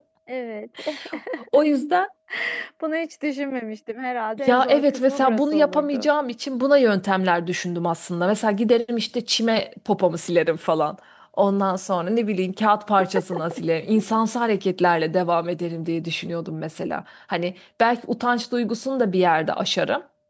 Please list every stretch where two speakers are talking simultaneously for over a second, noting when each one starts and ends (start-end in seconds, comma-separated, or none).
4.5-6.1